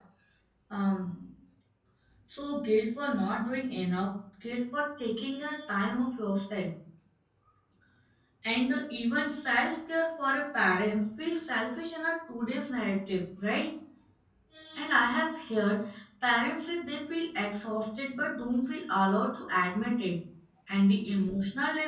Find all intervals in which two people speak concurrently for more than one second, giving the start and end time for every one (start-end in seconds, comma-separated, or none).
none